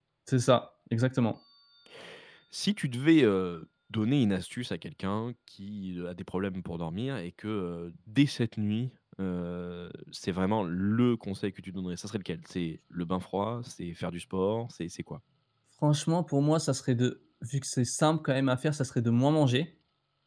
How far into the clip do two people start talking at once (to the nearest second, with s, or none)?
none